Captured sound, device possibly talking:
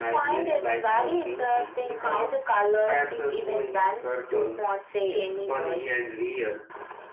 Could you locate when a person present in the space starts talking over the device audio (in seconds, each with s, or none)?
none